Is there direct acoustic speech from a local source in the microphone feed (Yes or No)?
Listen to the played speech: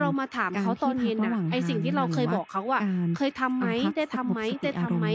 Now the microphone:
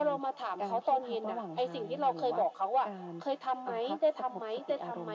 No